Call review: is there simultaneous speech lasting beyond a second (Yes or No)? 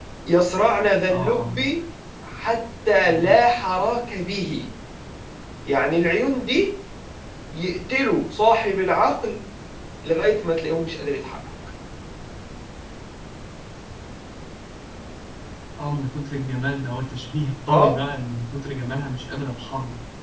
No